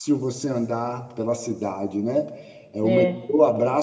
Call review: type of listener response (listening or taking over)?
listening